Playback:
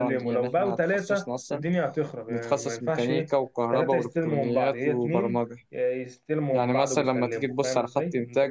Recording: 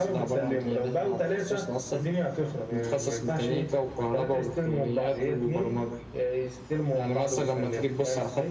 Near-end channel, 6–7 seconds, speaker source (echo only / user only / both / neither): echo only